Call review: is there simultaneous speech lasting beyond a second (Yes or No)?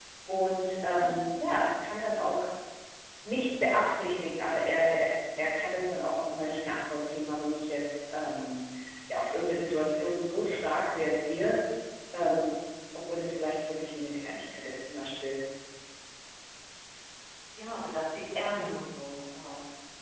No